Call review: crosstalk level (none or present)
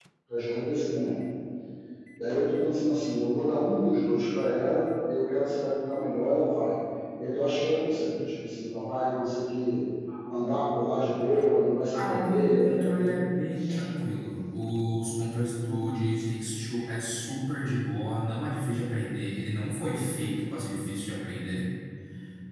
present